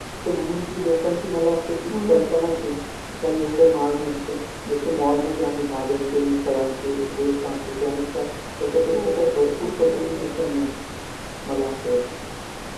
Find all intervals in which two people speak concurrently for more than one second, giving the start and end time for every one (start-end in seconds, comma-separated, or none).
8.9-10.2